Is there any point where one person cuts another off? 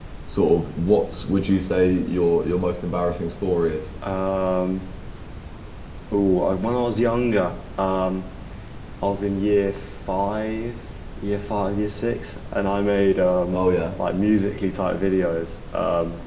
No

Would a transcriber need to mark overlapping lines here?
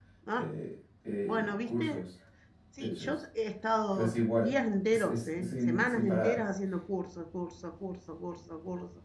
Yes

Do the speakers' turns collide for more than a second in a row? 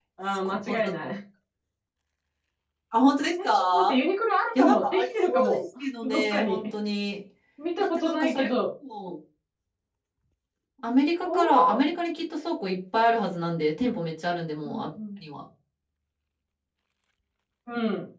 Yes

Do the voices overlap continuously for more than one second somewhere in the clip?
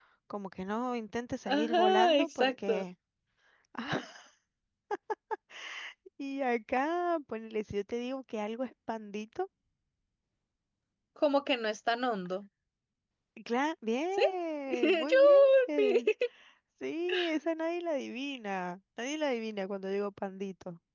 Yes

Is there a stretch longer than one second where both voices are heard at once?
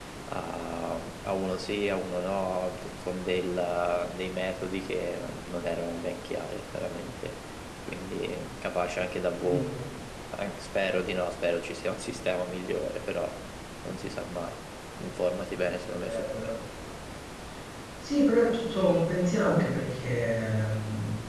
No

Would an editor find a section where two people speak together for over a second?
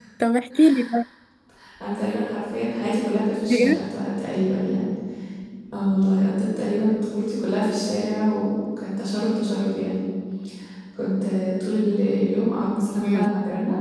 No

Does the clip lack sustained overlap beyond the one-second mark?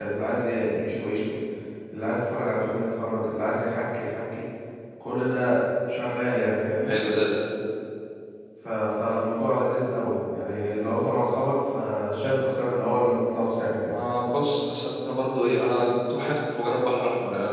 Yes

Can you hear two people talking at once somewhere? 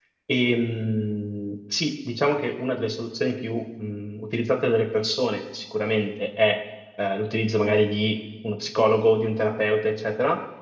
No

